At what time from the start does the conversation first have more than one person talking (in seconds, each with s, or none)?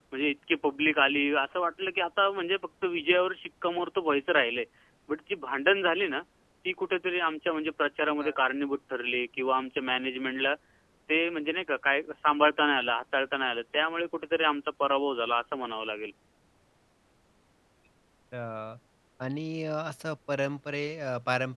none